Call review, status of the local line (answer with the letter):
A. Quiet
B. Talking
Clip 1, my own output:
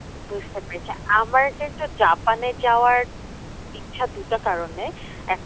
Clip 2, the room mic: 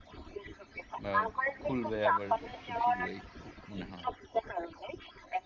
B